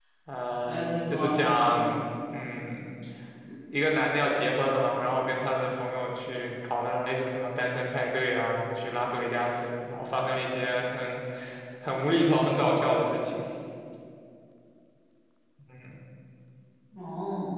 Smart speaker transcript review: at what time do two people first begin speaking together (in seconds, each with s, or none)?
0.6 s